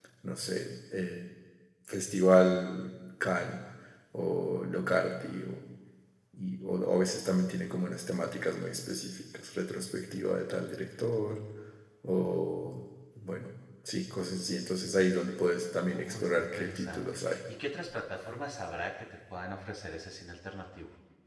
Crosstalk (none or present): present